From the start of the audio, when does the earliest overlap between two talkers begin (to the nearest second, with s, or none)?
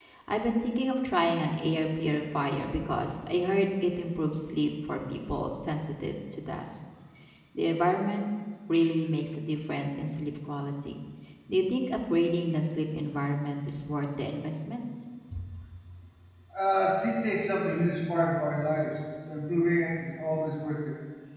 none